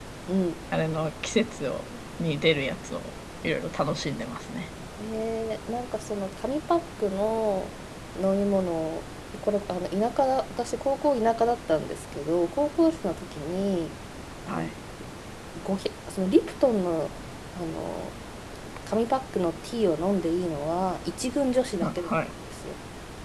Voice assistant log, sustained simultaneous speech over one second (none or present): none